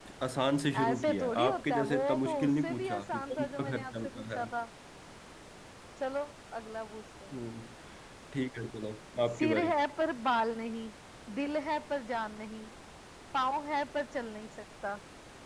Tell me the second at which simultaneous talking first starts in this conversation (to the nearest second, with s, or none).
1 s